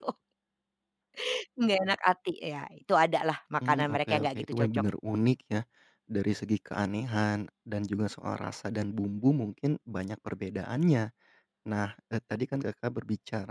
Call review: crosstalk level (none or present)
present